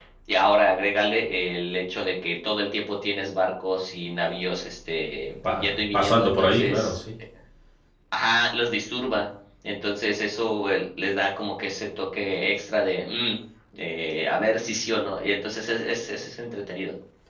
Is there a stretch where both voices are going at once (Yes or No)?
Yes